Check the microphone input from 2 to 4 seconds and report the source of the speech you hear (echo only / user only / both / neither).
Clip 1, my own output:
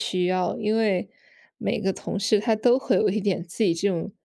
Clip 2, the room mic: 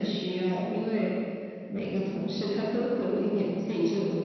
echo only